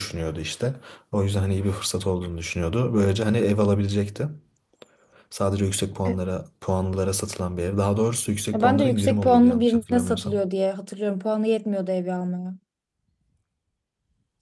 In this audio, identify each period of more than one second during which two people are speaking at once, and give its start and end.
8.5-10.4

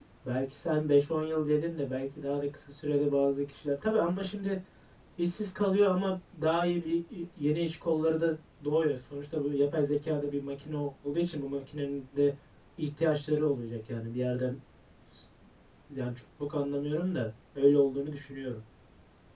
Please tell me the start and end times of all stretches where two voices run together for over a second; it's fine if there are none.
none

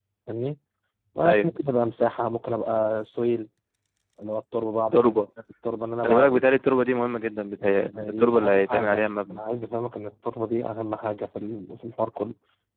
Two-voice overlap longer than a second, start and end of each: 8.0-9.4

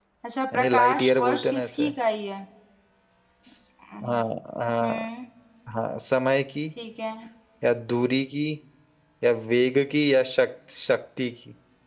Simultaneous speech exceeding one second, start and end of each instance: 0.5-1.9

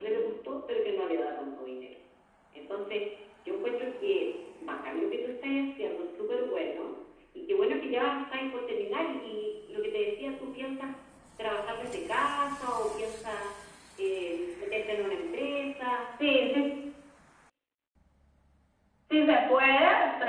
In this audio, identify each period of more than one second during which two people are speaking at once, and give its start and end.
none

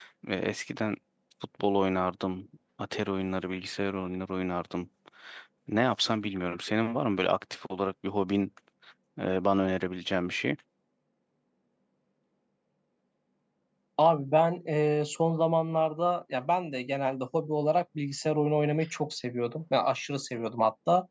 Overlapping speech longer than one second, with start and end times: none

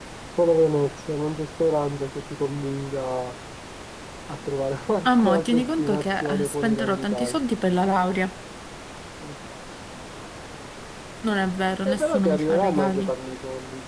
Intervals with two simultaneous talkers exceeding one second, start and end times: 5.2-7.4, 11.8-13.1

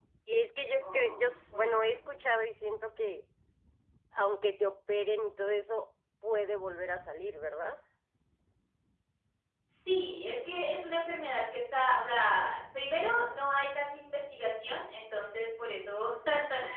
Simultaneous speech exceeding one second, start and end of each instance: 0.8-2.1

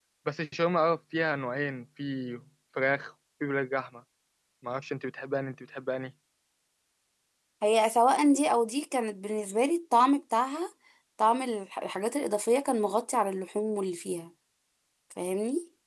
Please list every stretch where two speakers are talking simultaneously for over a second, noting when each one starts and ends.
none

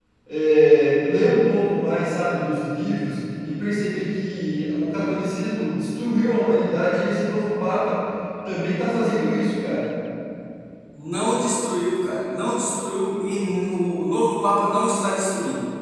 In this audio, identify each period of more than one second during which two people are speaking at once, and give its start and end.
none

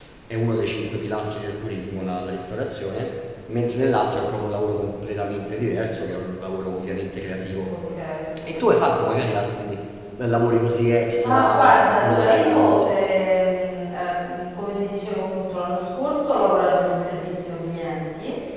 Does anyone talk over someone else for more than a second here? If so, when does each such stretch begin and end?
11.2-12.7

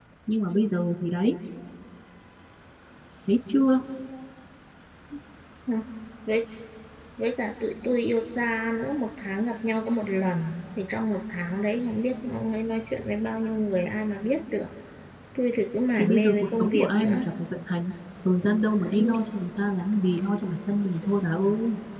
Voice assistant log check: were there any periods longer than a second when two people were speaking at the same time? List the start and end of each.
16.0-17.2

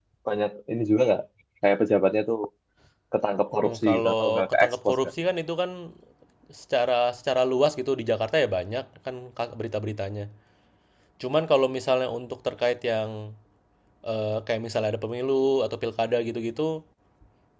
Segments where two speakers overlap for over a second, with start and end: 3.6-4.9

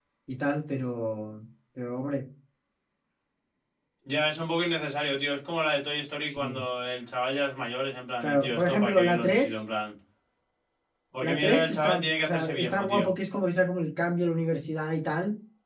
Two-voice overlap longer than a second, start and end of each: 8.2-9.6, 11.2-13.1

